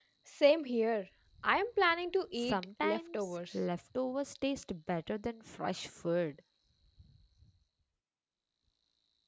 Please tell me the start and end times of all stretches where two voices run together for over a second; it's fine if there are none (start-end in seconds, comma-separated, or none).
2.3-3.5